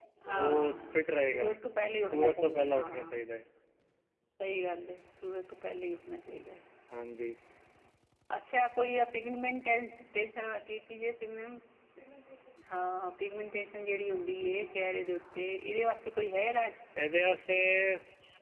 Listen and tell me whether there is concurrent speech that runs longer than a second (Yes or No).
Yes